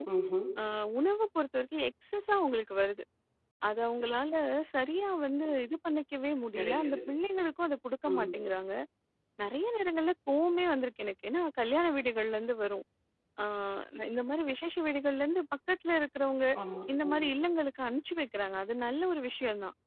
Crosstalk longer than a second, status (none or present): none